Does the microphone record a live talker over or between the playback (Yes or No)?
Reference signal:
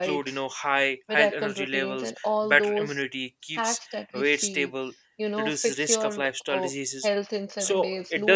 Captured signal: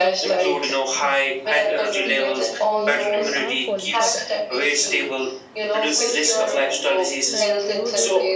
Yes